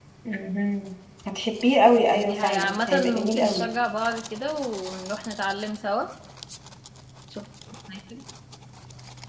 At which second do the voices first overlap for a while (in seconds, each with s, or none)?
2.1 s